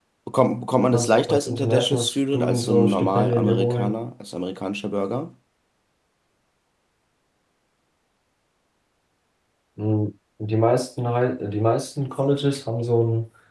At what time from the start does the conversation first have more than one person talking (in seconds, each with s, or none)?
0.9 s